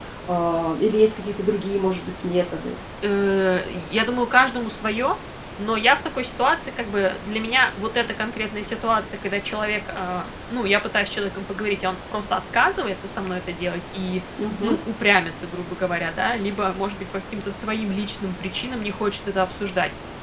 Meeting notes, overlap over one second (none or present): none